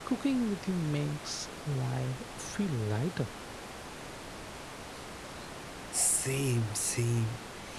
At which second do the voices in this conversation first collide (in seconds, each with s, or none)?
none